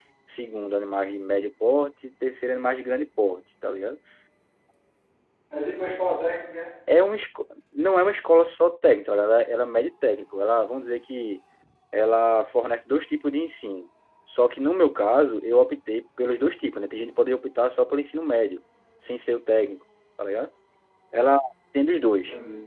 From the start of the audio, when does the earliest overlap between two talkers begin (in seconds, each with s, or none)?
none